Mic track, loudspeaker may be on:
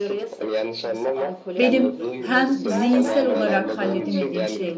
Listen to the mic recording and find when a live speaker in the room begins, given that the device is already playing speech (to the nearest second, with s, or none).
2 s